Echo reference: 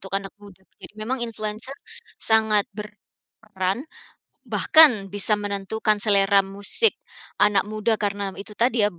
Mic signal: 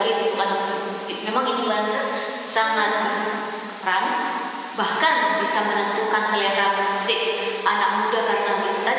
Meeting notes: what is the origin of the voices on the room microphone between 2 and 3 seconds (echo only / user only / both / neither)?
both